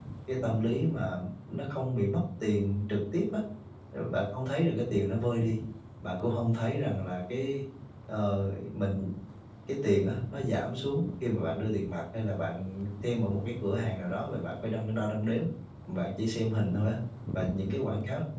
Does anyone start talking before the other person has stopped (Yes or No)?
No